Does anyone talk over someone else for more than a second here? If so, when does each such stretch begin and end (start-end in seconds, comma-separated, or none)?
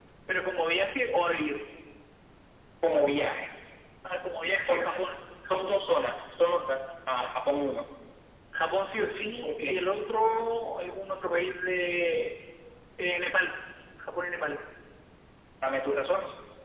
none